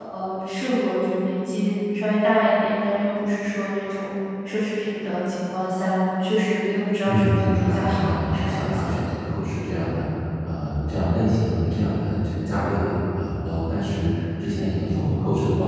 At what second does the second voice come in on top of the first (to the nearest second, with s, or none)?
7 s